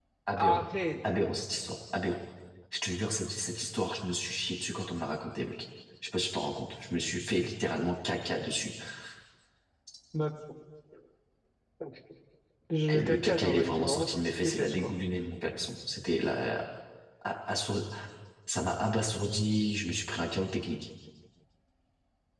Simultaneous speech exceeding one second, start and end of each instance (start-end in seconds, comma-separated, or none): 12.9-14.9